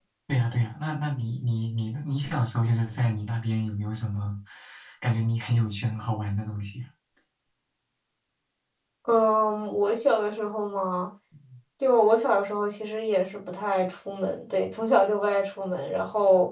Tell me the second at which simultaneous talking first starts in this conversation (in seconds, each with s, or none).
none